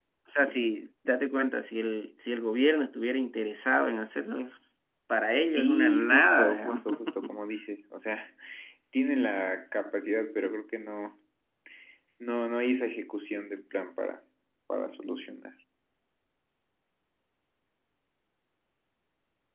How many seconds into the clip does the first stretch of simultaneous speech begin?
5.5 s

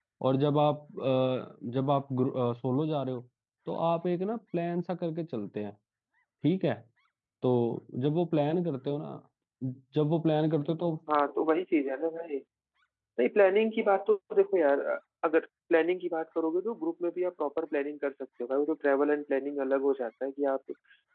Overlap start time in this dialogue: none

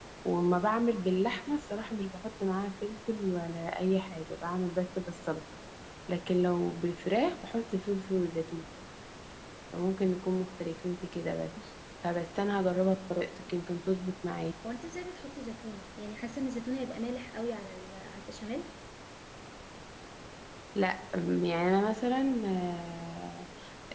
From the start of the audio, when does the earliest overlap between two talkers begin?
none

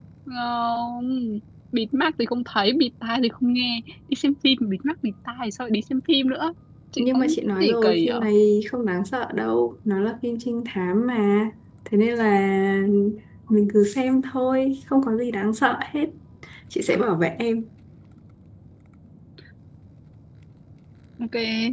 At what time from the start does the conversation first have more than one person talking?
7.0 s

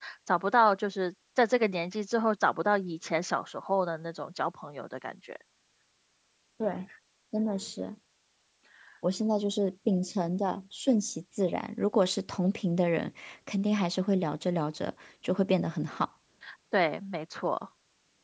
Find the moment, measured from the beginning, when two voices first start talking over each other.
none

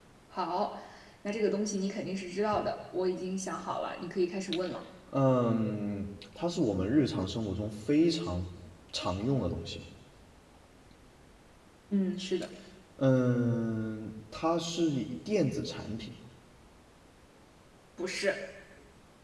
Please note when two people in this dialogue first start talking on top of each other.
none

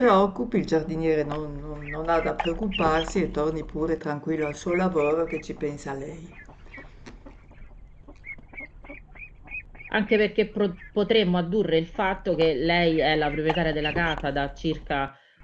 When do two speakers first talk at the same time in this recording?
none

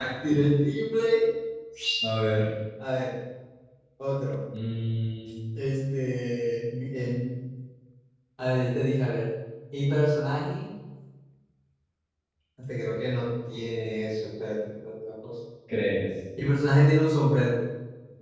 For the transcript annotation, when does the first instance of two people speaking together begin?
none

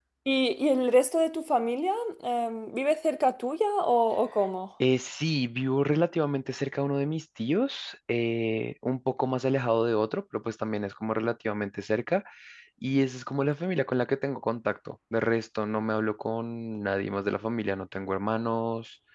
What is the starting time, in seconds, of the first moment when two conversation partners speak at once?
none

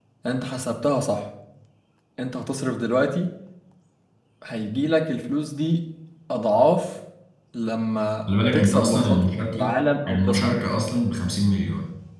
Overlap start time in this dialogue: 8.3 s

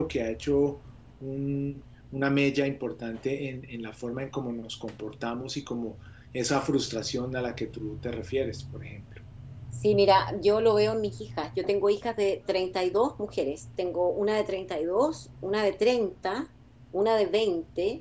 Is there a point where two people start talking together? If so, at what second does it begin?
none

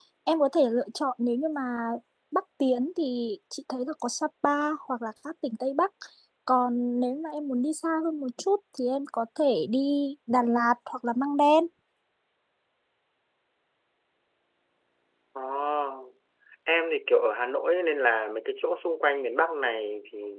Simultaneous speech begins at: none

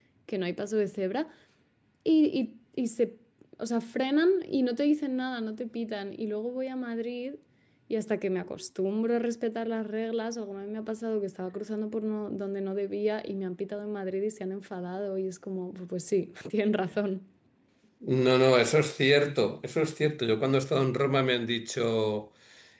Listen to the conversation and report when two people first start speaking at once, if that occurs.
none

